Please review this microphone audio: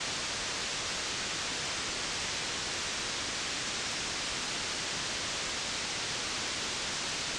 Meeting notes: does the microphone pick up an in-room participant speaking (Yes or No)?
No